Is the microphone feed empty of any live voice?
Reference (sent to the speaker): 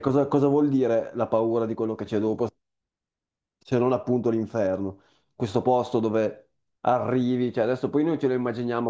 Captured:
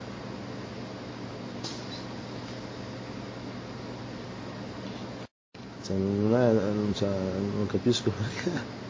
No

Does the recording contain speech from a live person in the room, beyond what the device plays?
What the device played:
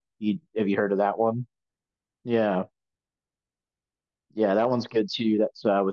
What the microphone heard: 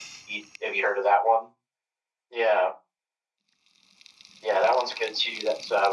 No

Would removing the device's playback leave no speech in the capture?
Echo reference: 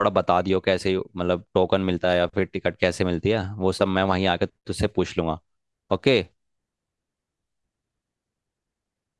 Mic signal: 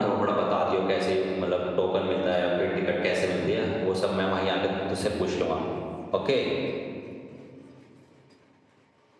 Yes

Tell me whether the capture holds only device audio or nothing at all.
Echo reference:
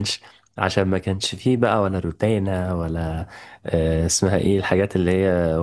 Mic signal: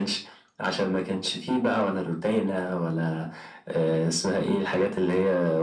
Yes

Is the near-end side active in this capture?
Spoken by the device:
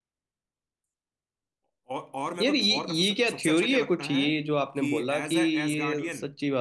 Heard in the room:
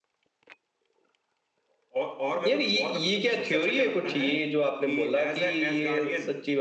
No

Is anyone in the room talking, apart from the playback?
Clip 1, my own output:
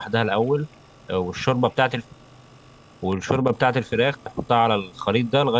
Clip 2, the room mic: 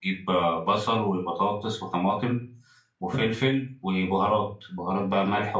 Yes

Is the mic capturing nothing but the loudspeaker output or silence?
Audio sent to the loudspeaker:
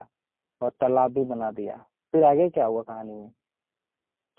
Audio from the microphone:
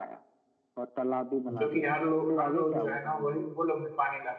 No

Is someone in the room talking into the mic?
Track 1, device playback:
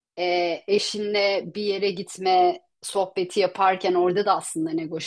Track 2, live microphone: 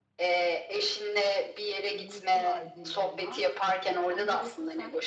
Yes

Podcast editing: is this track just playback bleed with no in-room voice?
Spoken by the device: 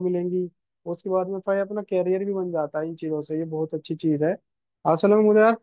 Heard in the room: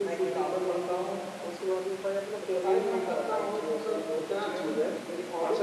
No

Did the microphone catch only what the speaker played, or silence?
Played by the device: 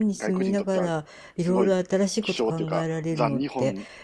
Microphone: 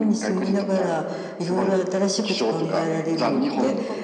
No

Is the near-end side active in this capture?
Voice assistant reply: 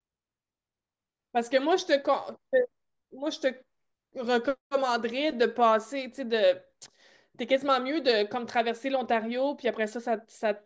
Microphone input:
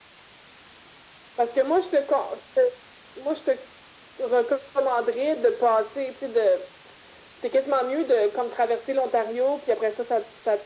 No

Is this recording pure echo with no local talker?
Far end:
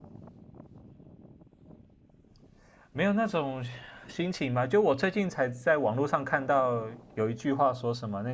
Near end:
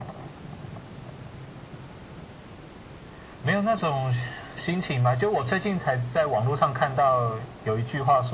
Yes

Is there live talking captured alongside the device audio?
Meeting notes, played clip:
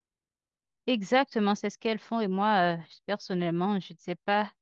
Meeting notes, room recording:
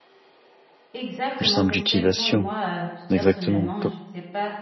Yes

